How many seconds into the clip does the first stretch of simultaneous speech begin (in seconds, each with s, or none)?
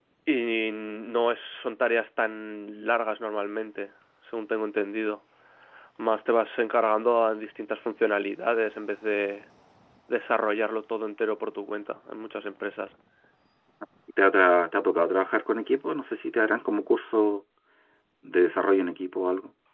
none